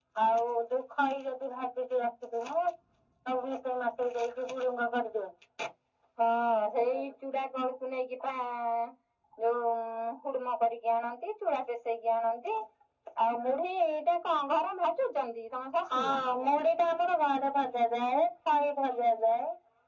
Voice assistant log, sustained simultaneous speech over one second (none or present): none